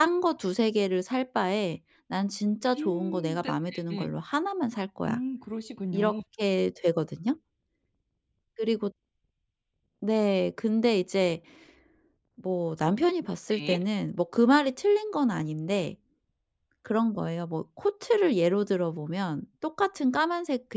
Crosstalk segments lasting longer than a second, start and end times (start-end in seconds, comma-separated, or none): 2.8-4.1